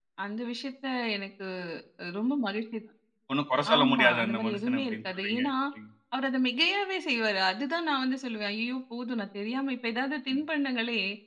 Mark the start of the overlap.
3.8 s

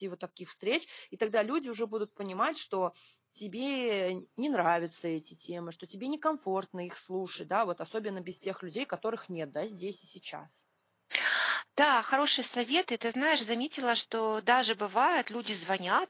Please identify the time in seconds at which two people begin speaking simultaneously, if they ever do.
none

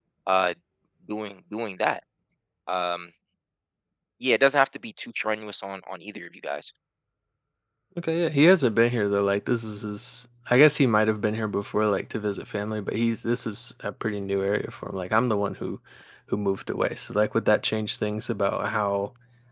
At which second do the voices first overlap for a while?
none

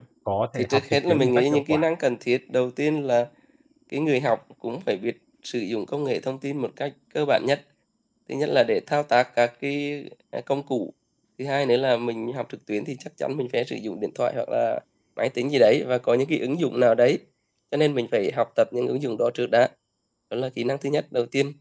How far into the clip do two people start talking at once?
0.6 s

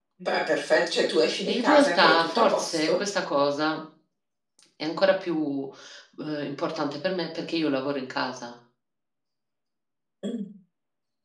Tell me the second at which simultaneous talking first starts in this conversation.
1.2 s

